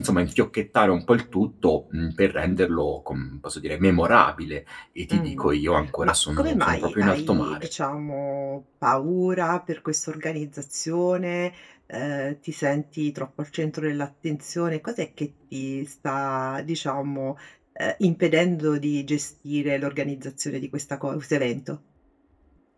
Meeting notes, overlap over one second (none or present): present